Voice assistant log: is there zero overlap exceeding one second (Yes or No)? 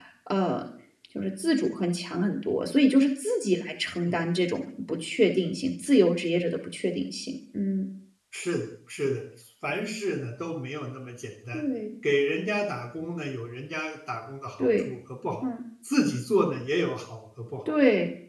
Yes